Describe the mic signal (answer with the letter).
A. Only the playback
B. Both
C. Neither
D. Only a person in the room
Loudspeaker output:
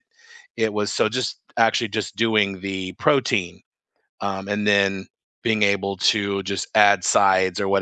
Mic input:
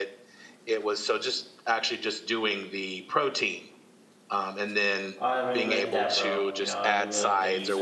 B